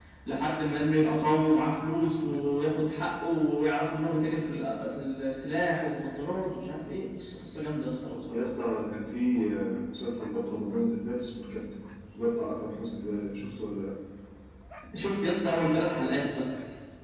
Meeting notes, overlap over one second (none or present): none